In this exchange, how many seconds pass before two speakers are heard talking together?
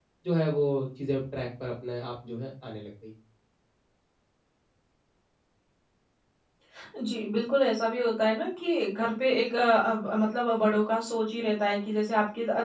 none

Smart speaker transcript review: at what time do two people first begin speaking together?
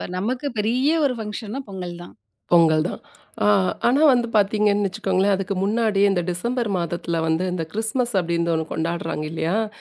none

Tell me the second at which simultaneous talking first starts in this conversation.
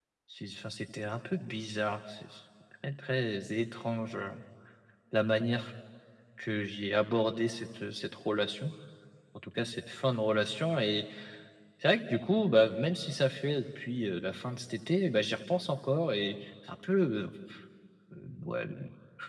none

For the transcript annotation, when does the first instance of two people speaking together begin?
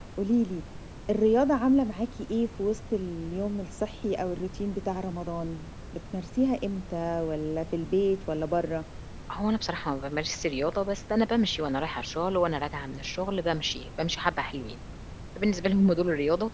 none

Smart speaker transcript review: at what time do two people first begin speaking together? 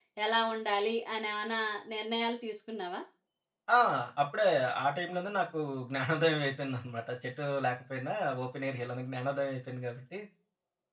none

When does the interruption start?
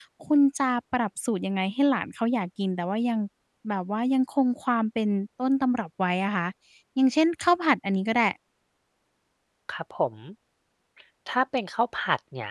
none

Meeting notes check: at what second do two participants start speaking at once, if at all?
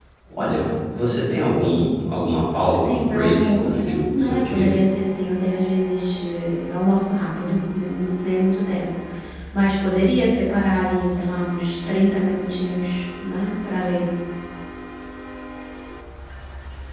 2.7 s

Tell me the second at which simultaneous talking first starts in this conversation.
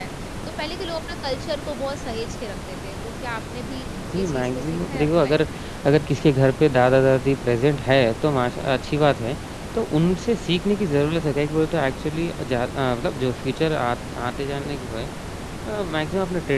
3.9 s

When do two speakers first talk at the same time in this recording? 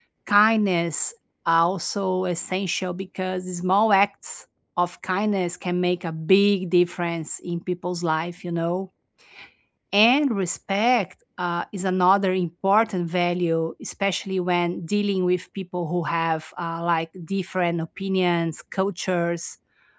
none

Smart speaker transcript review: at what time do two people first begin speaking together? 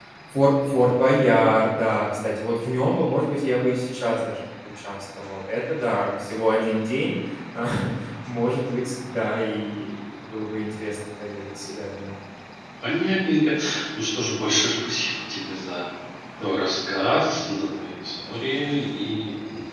none

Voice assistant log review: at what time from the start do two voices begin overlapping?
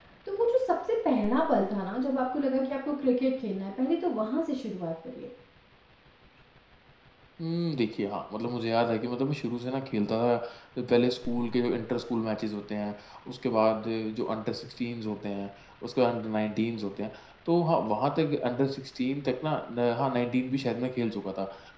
none

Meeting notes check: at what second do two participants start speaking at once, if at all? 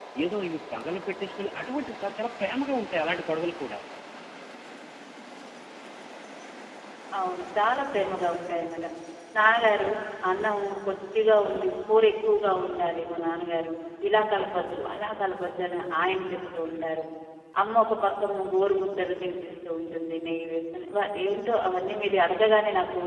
none

